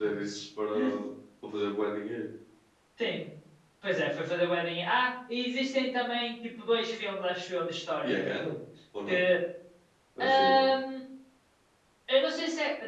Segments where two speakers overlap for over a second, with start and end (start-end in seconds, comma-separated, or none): none